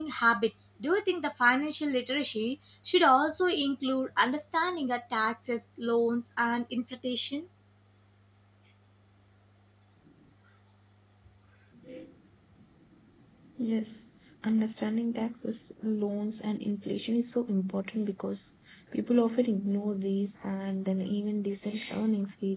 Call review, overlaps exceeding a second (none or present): none